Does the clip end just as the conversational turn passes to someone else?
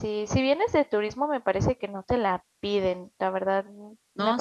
Yes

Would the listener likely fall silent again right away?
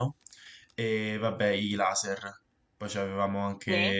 Yes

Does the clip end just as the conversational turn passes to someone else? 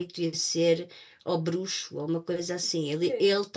No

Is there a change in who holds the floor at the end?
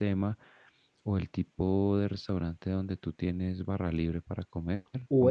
Yes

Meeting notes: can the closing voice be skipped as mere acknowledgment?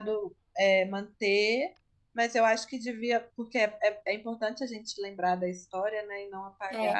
Yes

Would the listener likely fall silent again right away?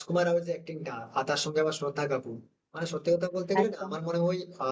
Yes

